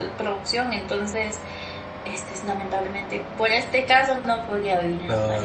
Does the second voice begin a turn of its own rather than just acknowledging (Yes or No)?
Yes